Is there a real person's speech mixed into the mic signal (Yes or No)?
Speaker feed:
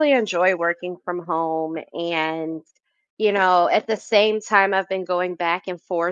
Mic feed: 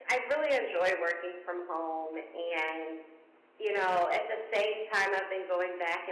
No